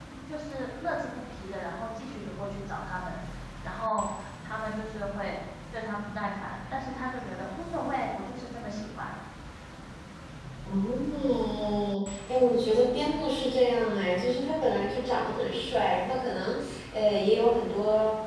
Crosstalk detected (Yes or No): No